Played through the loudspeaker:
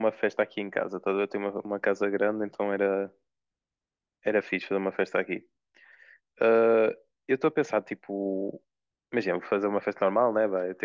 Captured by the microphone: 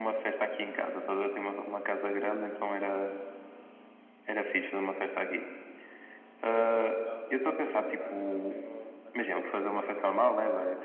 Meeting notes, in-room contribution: present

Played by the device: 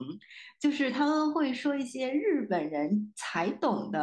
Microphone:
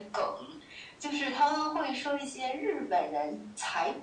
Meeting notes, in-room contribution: none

